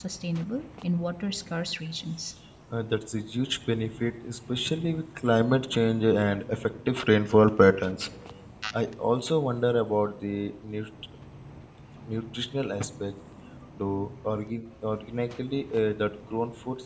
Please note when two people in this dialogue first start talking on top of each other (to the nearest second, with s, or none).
none